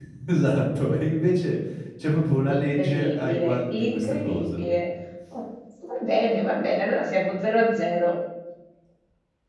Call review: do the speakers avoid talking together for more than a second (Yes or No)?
No